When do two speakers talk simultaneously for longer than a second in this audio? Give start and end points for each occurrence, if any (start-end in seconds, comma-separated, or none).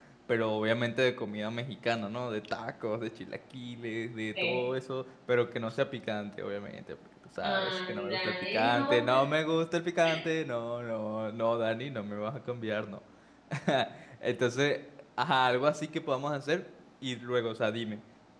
7.4-9.2